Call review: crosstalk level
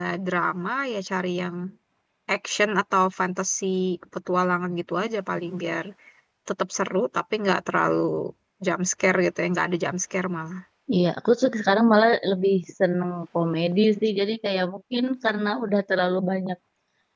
none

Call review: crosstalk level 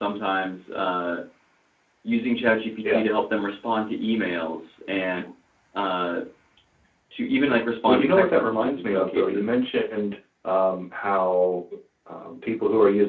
present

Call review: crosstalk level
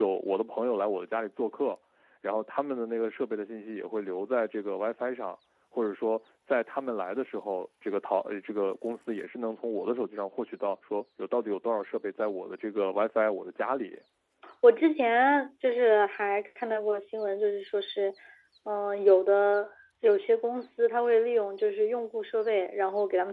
none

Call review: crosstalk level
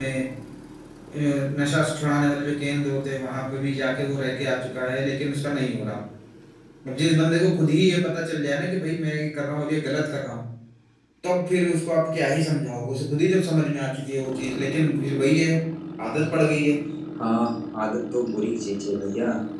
none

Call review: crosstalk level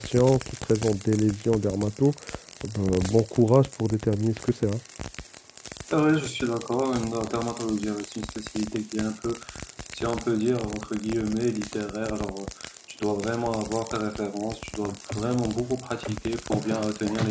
none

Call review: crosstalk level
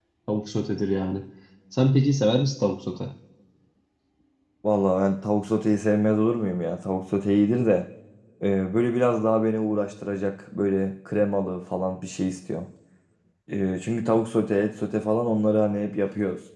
none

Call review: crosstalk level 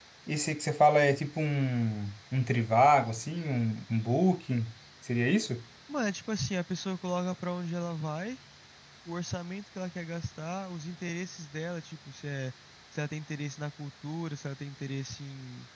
none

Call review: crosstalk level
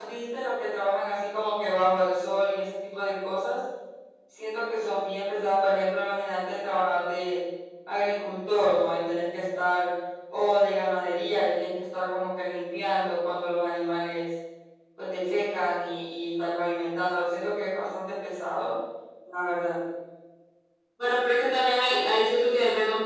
none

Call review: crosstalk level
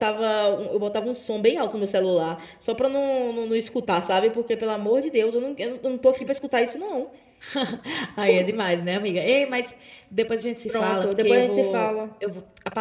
present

